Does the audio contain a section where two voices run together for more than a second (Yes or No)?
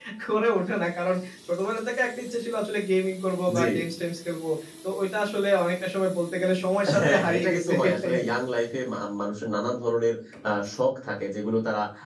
Yes